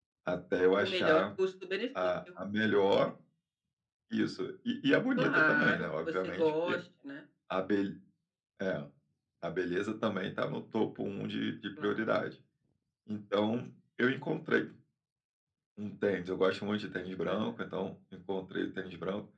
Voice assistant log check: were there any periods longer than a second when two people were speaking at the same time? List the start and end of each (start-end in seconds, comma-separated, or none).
5.2-6.8